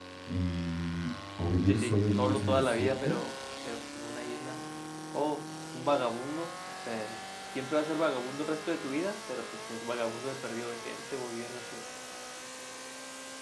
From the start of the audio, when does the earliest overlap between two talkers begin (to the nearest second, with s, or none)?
2 s